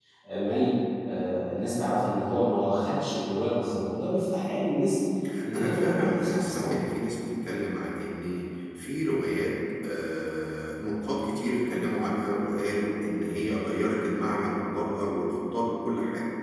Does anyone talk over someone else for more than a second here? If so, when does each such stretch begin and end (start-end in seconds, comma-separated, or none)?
5.5-6.8